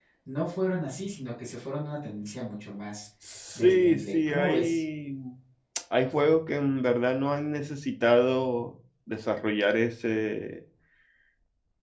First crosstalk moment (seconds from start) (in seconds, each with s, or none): 3.5 s